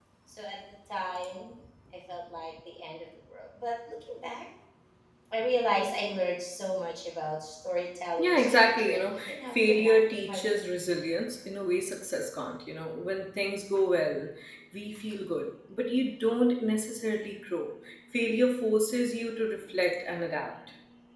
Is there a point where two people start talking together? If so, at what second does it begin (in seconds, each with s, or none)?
8.2 s